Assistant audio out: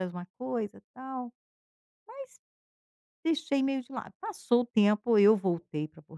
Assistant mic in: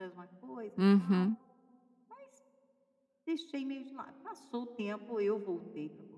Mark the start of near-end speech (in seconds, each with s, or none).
0.8 s